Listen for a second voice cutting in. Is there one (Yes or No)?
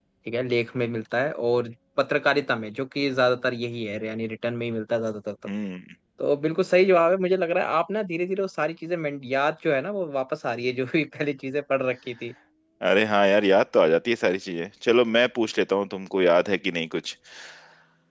No